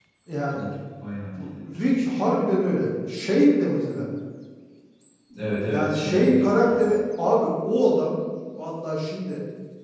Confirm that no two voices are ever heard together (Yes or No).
No